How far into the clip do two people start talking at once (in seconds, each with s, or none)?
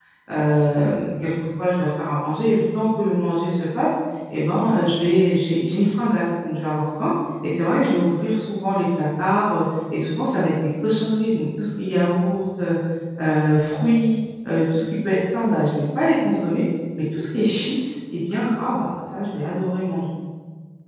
none